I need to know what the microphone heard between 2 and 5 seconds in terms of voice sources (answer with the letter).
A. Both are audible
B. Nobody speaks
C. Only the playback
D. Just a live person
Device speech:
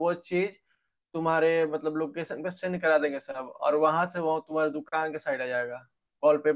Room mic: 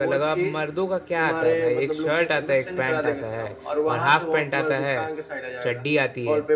A